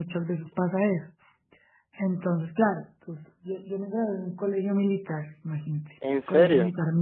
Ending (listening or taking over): listening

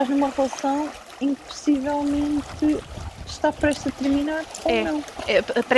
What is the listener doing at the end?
taking over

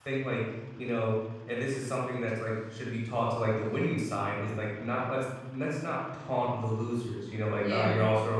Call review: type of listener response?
listening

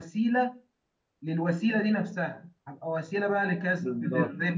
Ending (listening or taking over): listening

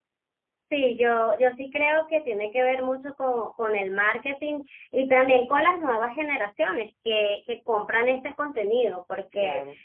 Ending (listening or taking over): listening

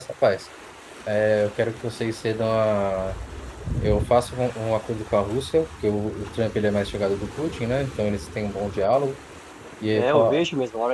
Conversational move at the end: taking over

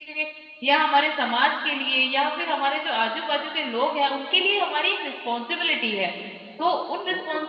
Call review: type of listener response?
listening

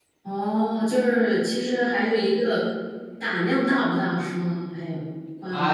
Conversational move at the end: taking over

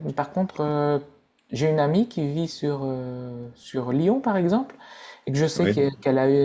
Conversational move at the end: listening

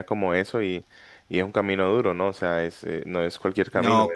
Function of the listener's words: listening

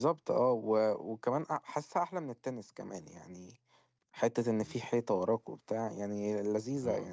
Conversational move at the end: taking over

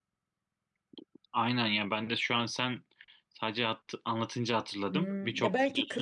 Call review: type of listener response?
taking over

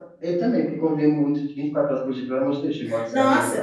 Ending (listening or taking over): taking over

